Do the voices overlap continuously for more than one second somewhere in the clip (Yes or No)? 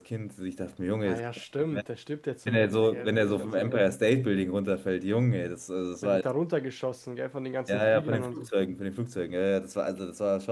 Yes